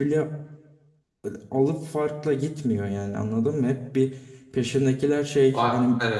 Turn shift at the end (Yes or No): No